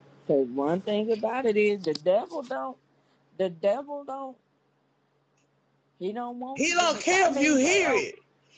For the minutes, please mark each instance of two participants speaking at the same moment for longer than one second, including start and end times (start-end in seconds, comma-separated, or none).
6.6-8.0